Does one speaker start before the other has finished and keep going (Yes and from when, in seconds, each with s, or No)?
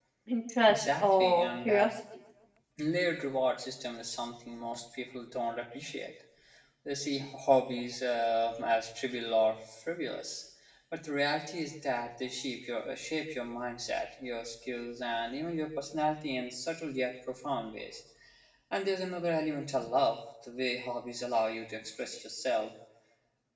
Yes, from 0.7 s